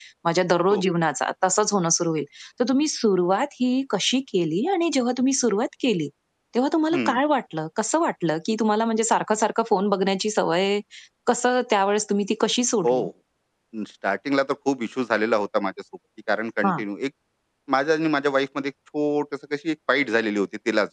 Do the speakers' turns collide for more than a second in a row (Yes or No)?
No